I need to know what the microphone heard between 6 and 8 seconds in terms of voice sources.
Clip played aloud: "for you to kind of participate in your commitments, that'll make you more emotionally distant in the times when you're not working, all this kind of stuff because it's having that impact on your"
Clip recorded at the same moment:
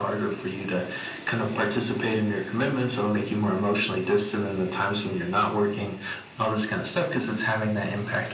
echo only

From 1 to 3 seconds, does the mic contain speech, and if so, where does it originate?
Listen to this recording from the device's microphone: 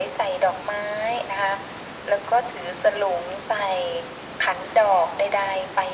echo only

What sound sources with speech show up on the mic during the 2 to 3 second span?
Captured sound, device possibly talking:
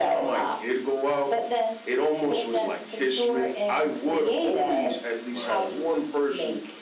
echo only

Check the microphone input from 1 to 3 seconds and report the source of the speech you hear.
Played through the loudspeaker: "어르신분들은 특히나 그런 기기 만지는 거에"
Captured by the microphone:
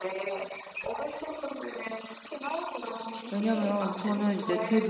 echo only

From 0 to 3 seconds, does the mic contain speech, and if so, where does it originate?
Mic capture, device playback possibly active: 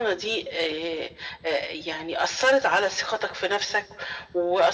echo only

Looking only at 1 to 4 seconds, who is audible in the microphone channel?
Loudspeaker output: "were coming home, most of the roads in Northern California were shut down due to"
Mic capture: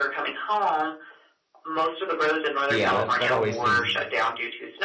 both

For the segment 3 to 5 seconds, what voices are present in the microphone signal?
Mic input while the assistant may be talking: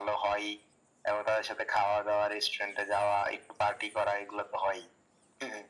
echo only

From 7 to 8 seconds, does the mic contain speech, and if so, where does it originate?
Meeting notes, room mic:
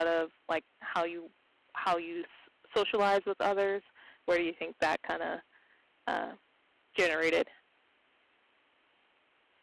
user only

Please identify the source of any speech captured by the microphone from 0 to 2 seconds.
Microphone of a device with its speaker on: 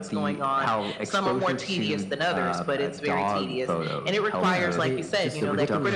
echo only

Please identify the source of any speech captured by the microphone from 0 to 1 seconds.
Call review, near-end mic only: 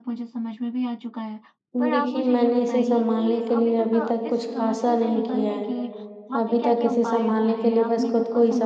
echo only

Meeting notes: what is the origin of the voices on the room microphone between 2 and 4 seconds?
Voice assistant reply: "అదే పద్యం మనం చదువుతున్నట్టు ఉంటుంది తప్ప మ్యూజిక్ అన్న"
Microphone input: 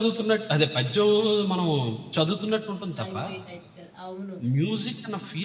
both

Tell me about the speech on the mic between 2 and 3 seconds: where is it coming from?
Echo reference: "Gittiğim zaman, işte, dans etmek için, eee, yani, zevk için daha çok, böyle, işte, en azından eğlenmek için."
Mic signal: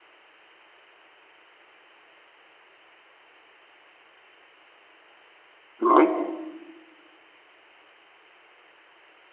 neither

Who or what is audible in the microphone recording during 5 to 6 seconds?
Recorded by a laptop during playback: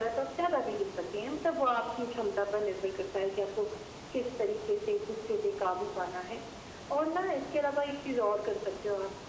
echo only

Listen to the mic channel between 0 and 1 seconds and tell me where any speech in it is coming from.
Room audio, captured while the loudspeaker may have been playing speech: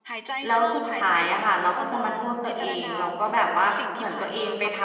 both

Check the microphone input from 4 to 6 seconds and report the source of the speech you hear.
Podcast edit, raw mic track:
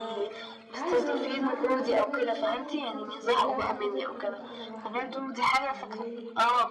both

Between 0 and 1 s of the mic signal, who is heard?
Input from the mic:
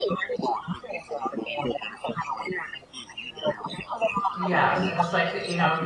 echo only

